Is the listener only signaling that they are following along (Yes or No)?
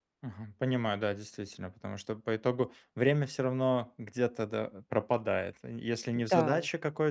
Yes